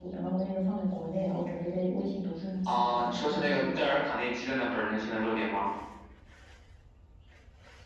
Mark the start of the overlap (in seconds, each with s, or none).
2.7 s